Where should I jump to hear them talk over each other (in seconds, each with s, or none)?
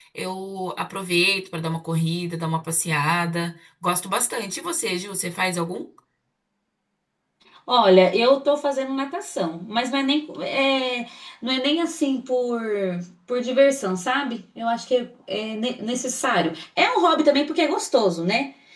none